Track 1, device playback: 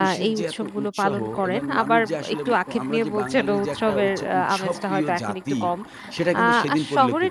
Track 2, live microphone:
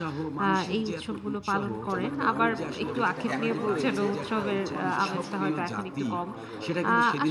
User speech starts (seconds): 1.9 s

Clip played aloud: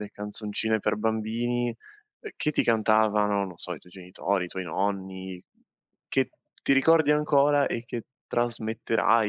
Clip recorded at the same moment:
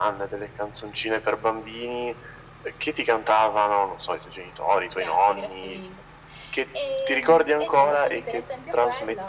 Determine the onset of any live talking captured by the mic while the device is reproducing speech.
5.0 s

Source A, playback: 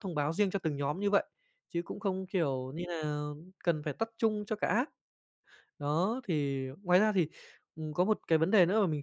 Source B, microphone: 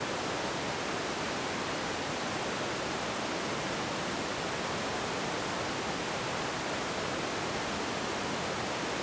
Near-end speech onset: none

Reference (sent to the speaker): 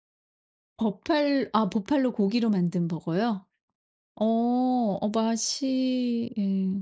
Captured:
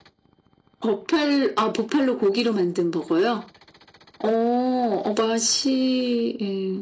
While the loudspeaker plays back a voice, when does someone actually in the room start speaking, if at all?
none

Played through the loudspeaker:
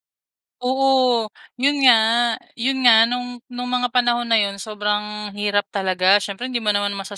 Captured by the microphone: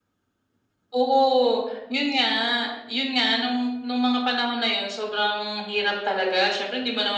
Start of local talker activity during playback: none

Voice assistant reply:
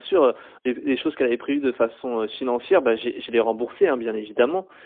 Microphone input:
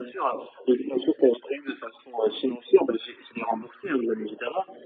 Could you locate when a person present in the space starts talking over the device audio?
none

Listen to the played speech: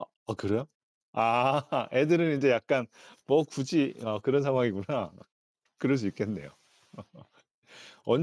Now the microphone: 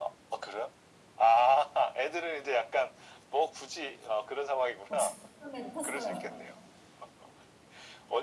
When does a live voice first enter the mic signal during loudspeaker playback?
4.9 s

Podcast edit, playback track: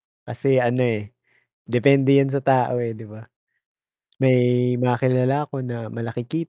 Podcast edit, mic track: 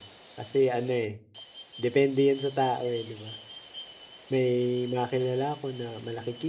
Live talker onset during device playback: none

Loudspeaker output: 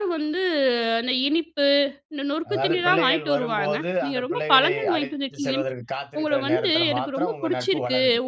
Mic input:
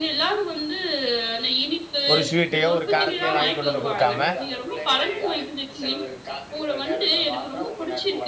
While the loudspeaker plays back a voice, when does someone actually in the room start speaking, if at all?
2.1 s

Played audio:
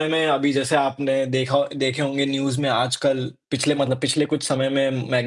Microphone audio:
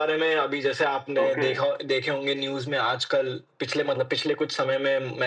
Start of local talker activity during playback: 1.2 s

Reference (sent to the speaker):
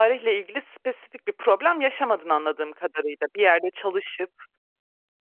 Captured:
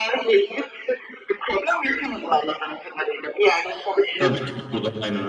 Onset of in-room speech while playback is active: 4.2 s

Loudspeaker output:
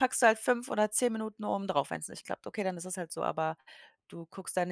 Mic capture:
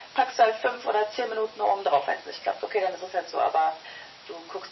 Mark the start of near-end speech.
none

